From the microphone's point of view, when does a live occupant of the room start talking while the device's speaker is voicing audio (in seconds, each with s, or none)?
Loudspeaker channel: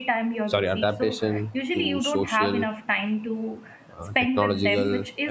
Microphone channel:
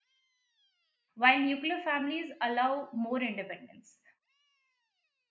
1.2 s